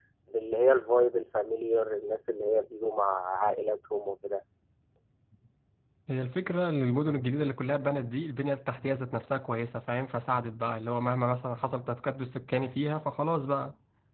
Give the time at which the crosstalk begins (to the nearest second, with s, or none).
none